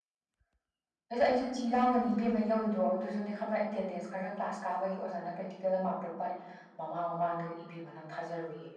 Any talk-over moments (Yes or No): No